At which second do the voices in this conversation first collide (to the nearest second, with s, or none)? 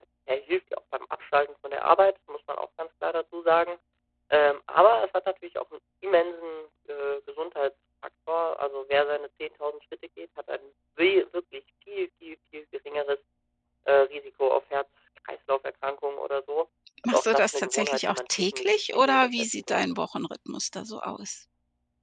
17 s